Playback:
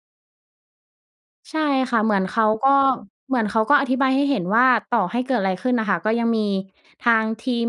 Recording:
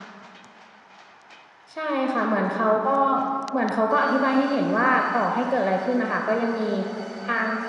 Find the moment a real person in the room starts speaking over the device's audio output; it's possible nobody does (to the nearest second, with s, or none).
none